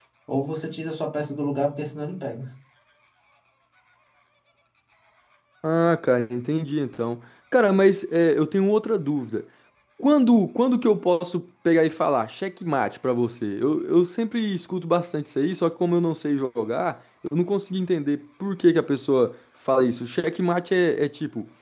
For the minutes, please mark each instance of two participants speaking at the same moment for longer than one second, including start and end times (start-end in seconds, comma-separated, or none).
none